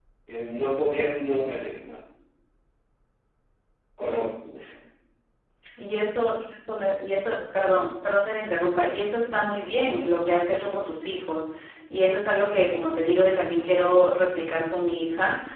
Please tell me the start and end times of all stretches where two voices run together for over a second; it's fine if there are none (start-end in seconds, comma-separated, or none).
none